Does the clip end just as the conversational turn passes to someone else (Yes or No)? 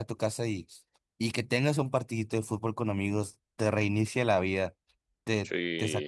No